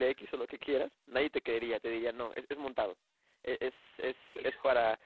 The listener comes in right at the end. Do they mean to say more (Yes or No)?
No